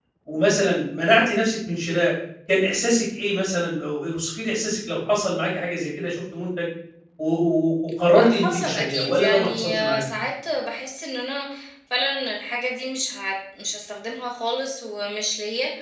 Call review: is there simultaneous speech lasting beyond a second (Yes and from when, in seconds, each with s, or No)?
Yes, from 8.1 s